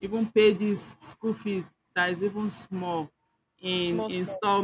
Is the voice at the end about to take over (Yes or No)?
No